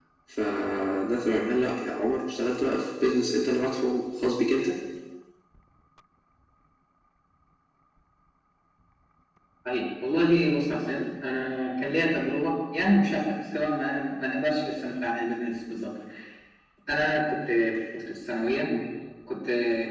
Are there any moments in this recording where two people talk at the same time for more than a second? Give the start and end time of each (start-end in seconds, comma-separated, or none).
none